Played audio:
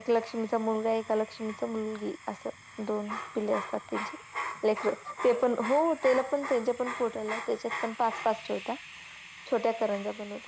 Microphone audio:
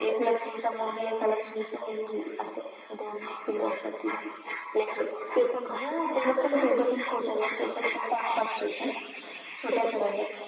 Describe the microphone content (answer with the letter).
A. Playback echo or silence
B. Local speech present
A